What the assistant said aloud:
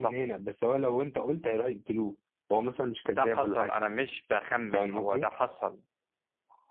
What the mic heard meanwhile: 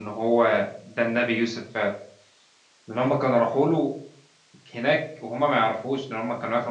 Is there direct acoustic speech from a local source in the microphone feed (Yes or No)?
Yes